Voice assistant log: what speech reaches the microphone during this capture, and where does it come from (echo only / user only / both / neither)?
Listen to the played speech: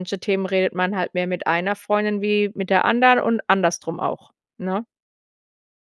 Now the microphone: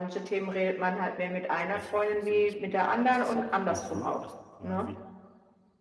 both